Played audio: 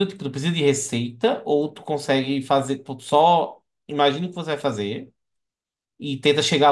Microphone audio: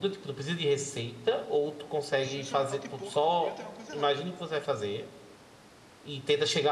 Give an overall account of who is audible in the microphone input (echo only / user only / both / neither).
both